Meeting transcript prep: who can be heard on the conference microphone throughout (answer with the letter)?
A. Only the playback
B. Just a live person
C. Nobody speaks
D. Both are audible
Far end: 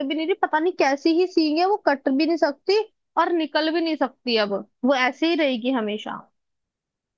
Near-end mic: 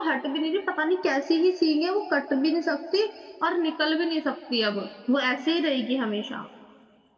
A